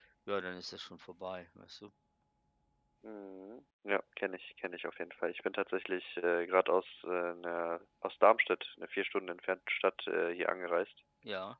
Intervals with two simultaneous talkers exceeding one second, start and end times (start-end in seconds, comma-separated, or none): none